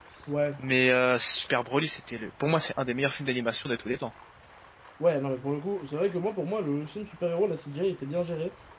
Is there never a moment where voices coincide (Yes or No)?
Yes